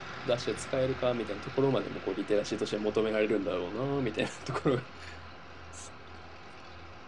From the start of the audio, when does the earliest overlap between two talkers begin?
none

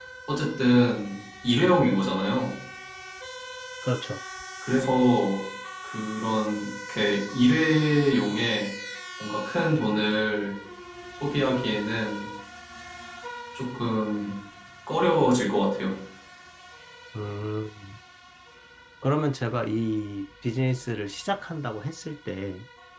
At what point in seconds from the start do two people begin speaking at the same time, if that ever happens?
none

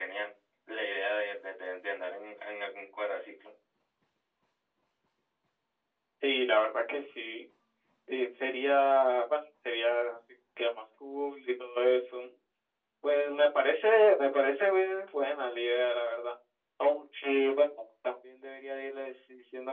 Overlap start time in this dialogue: none

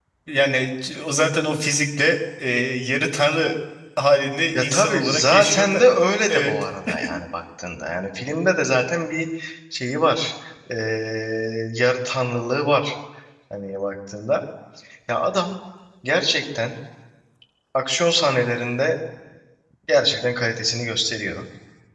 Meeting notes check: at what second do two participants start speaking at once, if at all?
5 s

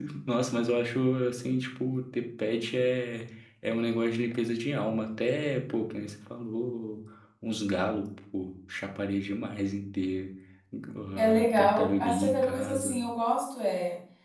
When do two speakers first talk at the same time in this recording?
11 s

